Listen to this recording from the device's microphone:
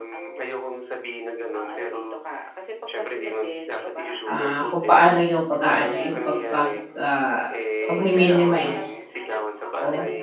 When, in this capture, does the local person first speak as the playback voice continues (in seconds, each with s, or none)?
4.3 s